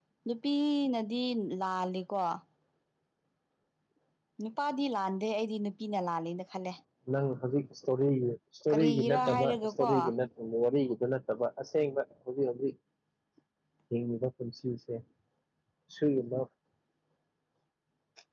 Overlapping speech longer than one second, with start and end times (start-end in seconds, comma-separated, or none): 8.7-9.9